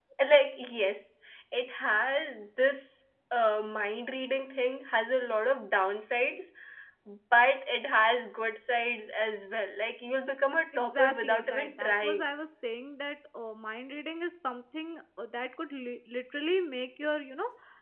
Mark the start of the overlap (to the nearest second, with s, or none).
11 s